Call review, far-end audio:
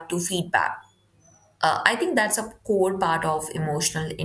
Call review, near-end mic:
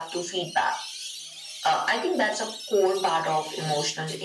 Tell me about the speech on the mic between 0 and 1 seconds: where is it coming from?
echo only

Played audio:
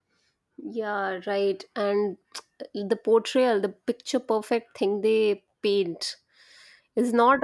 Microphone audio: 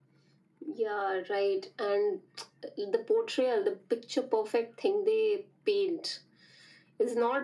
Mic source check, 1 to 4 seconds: echo only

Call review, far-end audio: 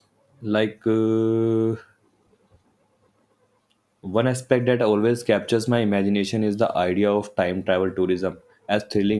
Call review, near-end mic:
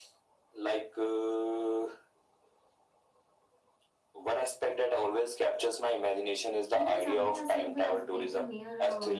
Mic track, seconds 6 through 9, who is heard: both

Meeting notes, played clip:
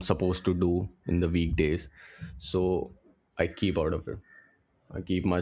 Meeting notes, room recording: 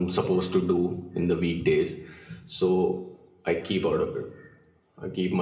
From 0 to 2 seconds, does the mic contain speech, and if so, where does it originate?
echo only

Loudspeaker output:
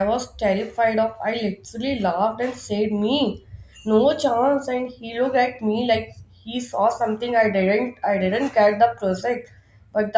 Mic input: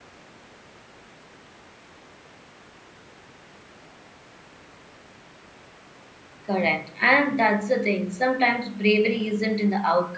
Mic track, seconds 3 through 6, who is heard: neither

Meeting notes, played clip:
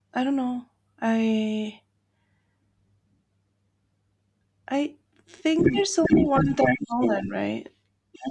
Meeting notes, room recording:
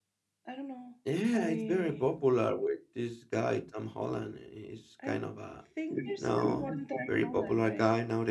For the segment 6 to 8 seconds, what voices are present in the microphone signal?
both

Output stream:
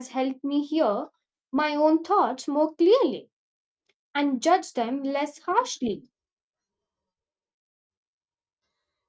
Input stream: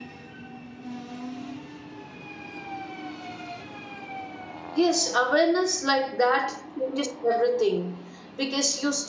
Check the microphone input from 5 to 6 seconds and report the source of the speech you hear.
user only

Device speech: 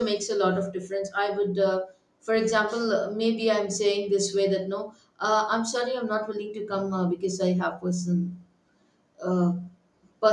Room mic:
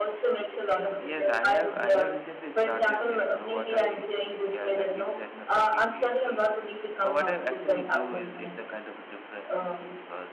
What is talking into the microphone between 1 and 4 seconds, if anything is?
both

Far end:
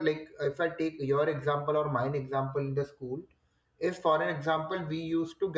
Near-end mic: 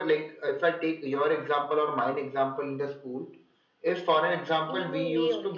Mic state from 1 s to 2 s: echo only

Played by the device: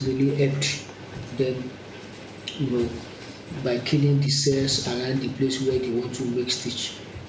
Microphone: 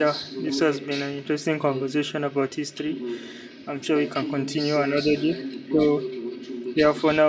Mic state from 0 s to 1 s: both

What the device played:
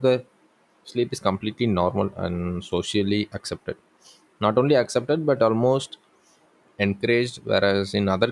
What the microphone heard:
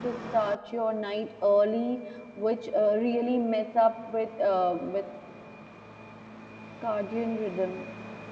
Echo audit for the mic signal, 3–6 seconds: user only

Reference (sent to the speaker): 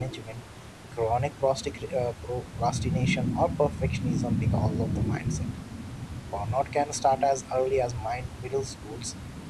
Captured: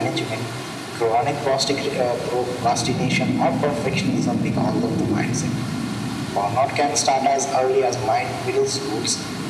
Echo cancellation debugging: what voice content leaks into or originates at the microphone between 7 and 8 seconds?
echo only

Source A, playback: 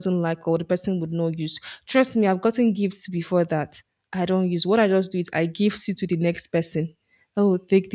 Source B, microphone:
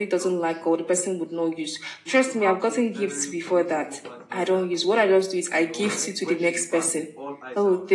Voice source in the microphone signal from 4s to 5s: both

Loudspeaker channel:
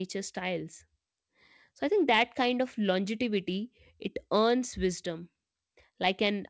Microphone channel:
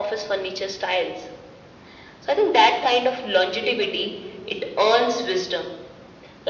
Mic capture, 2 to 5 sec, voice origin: both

